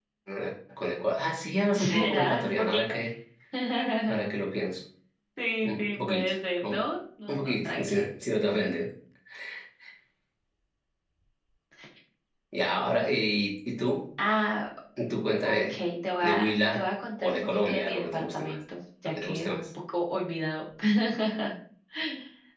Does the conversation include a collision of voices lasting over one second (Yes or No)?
Yes